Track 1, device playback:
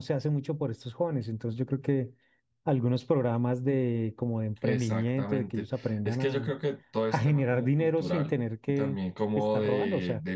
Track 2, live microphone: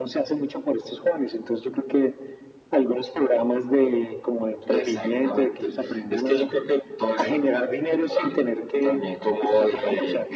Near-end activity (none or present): none